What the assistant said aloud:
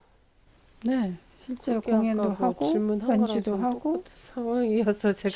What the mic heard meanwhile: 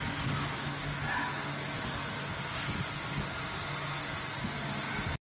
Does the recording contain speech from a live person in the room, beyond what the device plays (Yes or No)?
No